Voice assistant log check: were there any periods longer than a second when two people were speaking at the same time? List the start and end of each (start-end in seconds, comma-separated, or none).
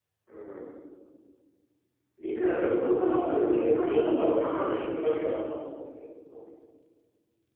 3.0-5.3